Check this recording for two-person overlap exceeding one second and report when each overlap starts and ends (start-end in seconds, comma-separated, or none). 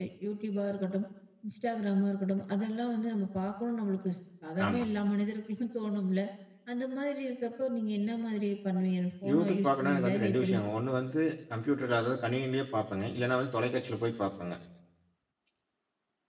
9.3-10.6